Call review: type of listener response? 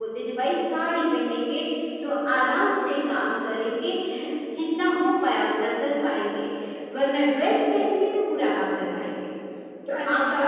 listening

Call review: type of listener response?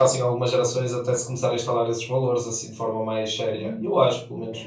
taking over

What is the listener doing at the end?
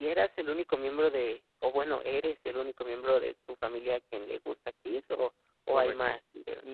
taking over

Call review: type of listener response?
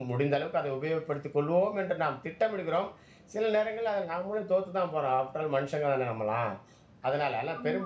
listening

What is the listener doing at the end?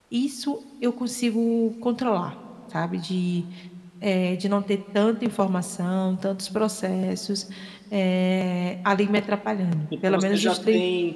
taking over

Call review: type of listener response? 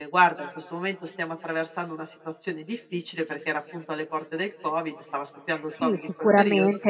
taking over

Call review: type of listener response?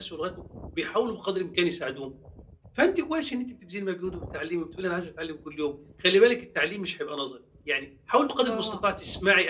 listening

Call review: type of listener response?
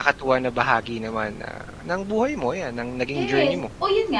taking over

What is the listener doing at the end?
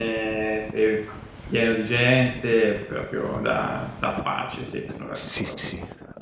taking over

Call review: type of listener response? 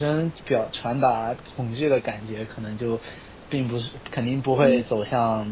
listening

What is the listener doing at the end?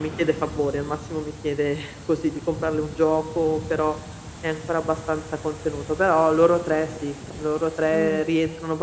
listening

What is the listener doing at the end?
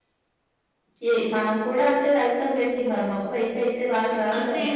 taking over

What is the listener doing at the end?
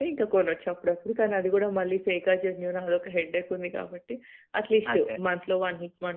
listening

